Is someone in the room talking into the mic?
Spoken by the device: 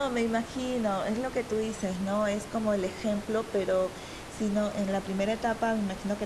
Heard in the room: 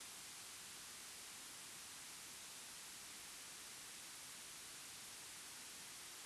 No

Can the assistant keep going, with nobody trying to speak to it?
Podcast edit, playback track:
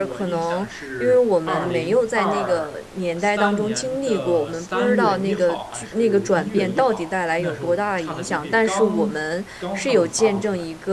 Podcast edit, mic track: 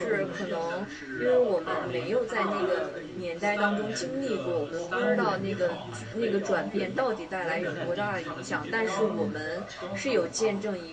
No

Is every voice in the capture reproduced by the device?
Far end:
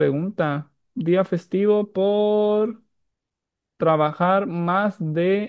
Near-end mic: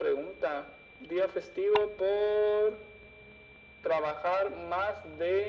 Yes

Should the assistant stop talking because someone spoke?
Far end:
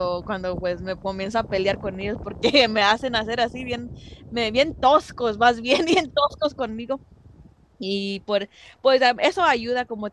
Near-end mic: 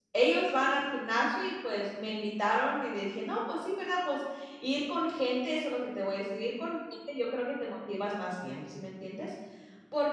Yes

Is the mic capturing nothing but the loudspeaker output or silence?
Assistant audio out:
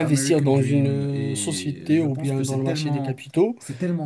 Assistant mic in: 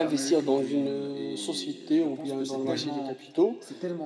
No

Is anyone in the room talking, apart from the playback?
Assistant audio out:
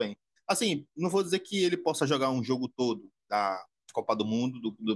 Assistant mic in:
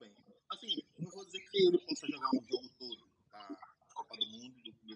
No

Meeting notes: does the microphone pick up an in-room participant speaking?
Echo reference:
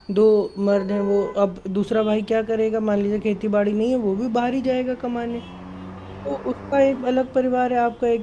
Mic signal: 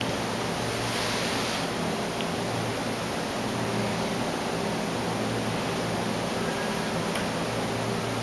No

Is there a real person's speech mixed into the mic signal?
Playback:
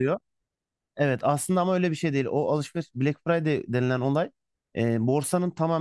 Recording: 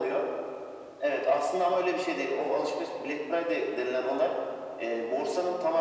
No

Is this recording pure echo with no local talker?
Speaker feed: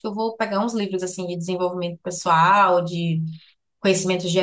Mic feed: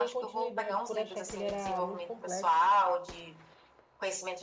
No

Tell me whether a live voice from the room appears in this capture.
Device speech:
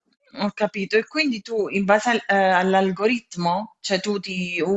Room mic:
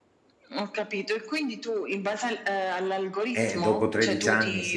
Yes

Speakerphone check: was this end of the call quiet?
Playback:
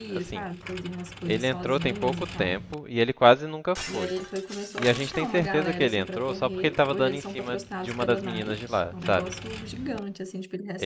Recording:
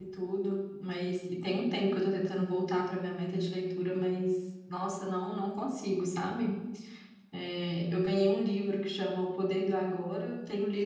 No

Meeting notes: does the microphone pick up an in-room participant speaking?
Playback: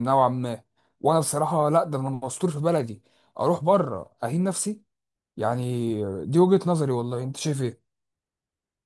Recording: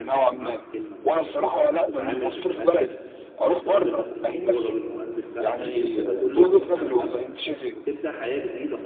Yes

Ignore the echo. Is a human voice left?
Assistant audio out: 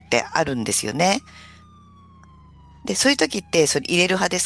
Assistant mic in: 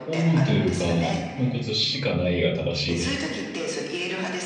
Yes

